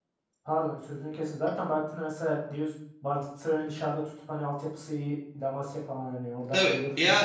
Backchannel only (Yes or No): No